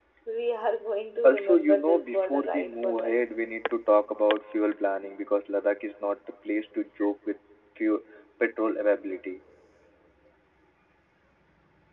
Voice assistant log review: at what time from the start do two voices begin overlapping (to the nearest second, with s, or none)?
1 s